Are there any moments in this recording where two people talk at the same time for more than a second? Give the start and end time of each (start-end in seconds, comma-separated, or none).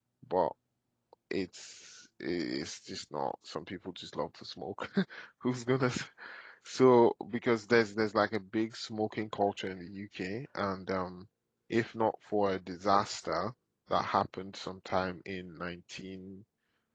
none